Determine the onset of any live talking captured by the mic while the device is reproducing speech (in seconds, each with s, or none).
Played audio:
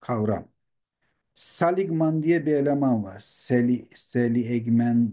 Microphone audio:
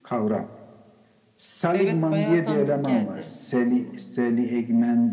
1.7 s